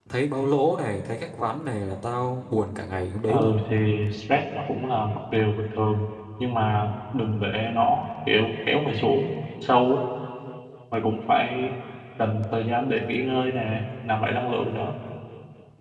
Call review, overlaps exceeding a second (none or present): none